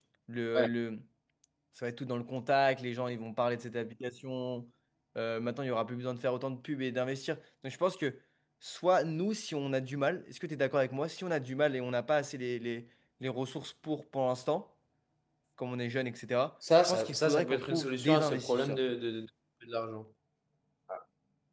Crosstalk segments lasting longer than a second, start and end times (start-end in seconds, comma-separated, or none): 16.8-18.8